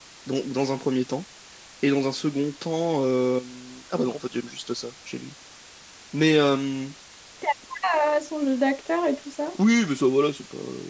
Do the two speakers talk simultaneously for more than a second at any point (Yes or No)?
No